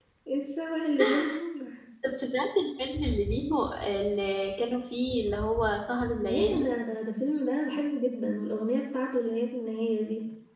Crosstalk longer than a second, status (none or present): none